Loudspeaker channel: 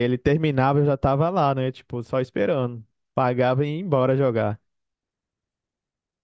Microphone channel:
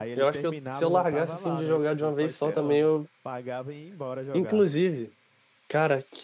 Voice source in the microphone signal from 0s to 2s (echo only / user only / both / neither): both